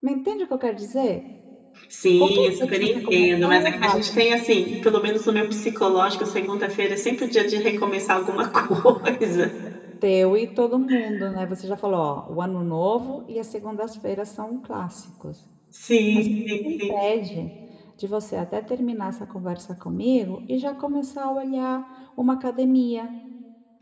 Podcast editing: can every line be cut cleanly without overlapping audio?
No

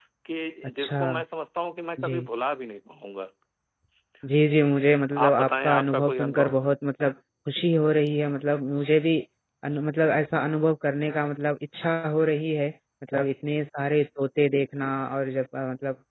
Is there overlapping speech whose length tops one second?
Yes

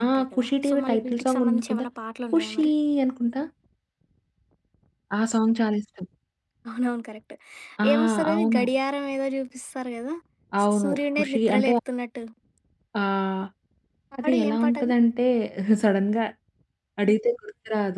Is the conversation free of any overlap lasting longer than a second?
No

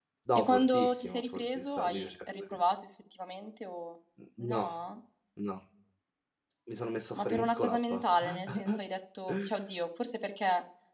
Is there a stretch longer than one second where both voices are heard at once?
Yes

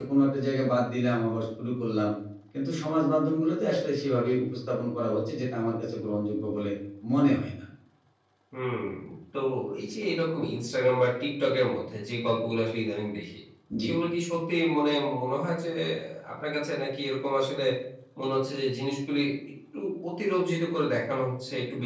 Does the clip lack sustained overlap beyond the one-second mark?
Yes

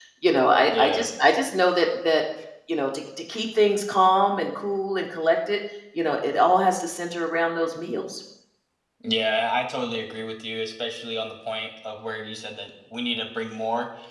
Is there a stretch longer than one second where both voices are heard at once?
No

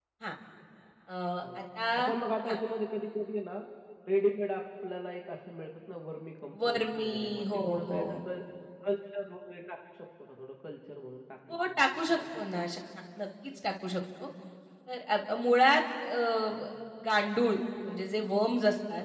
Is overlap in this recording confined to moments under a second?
No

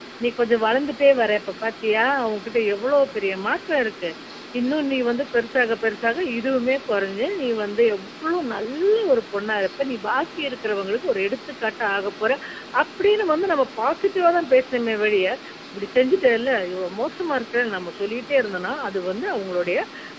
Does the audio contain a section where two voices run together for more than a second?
No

